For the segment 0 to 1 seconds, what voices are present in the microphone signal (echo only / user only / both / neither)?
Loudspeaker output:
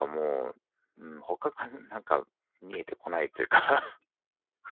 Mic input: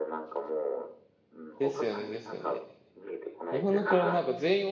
echo only